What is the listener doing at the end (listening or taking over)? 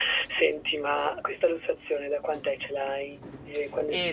taking over